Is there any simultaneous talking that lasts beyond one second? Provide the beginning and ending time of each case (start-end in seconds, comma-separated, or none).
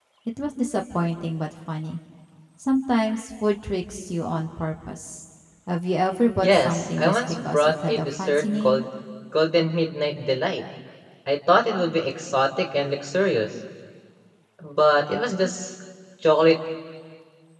6.4-8.8